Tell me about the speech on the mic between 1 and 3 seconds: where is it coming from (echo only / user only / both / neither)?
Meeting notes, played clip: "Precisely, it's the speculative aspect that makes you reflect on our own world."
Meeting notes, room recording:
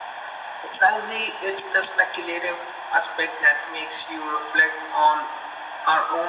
echo only